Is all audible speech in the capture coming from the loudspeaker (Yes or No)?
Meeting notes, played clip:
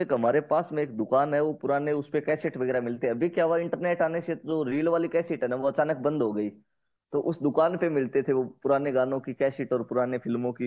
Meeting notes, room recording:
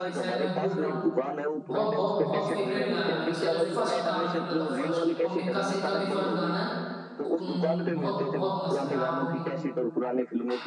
No